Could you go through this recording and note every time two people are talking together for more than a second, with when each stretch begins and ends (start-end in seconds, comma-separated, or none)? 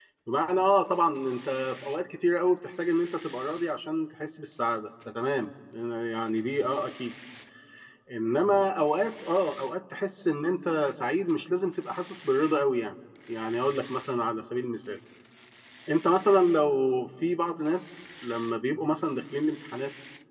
none